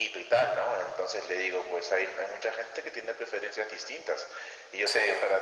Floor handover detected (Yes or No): No